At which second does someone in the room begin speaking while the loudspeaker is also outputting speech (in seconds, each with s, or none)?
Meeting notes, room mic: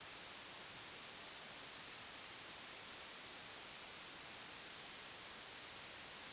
none